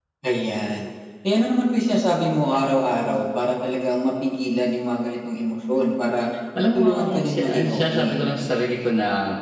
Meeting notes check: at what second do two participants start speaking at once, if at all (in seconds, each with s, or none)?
6.5 s